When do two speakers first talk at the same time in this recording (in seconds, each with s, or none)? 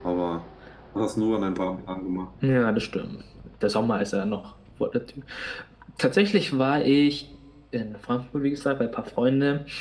none